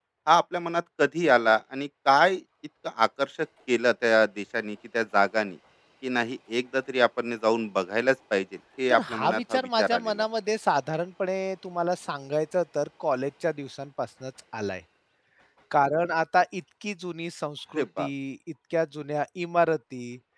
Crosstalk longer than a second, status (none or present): present